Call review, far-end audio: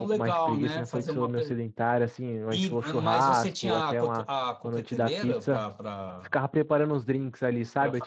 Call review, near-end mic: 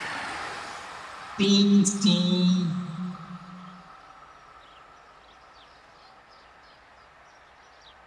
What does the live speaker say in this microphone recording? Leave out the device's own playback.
sim.

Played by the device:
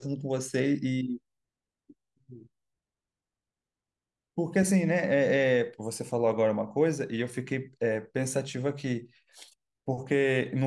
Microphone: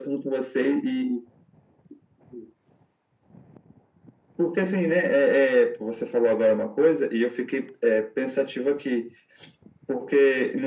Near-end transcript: none

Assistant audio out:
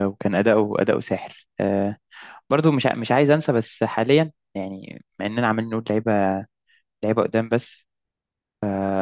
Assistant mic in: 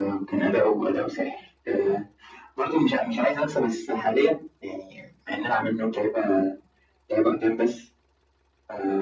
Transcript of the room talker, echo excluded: none

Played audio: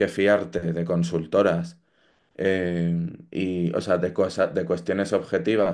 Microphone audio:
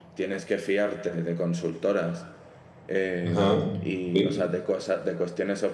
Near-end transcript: Ajá, sí,

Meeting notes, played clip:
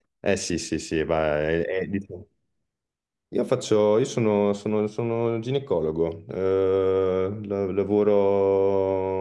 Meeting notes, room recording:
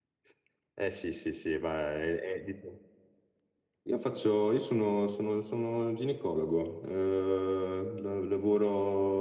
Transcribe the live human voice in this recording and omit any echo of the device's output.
none

